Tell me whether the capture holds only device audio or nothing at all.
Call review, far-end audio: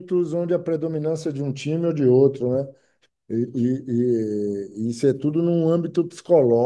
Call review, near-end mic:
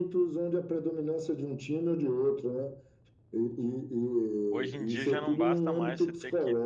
No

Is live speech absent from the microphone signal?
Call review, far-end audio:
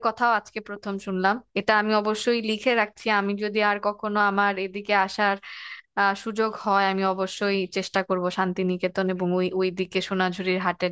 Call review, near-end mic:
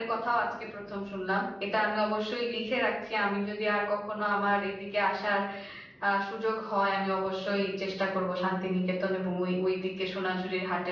Yes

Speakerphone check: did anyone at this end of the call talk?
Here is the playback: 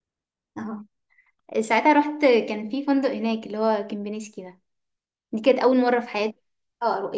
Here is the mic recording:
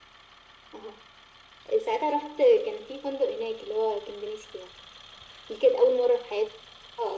No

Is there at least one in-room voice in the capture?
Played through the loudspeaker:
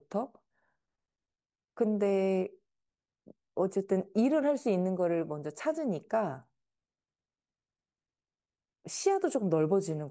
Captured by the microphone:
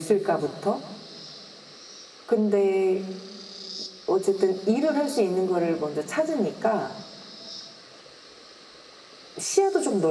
No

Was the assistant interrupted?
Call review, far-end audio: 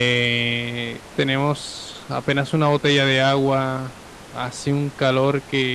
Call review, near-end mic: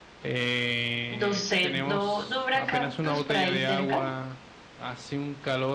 Yes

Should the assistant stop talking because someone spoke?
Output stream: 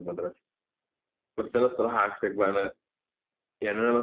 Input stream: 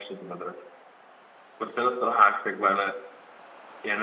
No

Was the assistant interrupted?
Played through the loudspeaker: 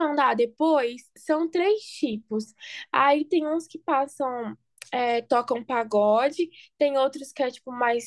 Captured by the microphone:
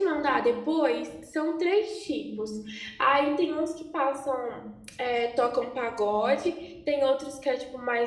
No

